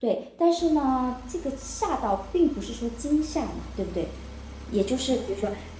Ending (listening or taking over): listening